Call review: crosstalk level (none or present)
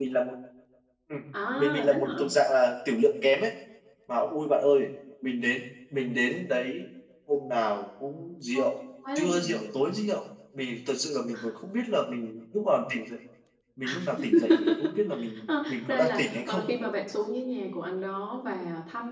present